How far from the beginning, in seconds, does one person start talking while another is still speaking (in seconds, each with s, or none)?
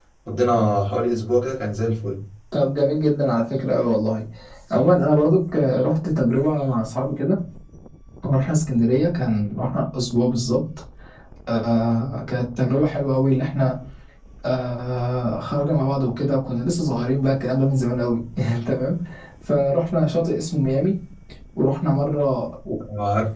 none